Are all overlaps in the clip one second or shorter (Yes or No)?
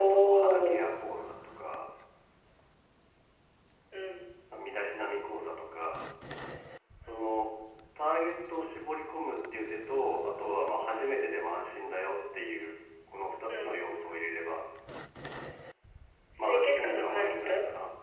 No